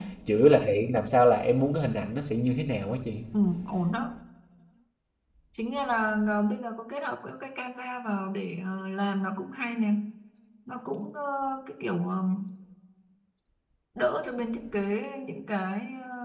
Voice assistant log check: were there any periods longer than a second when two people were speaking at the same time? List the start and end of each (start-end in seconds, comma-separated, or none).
none